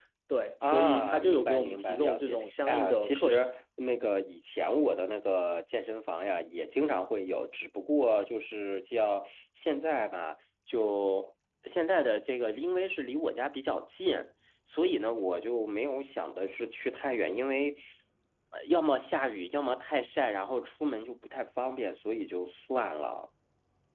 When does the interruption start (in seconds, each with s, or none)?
0.6 s